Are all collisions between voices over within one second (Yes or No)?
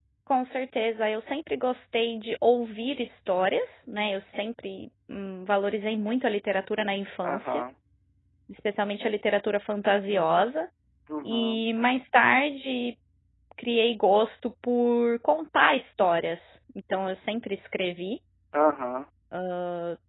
Yes